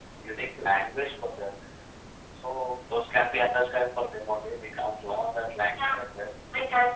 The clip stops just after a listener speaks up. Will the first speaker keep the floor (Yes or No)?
No